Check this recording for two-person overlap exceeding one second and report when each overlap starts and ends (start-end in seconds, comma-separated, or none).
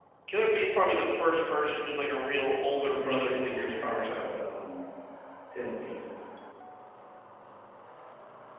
2.9-4.2